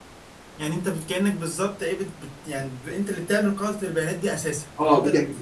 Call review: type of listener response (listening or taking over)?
taking over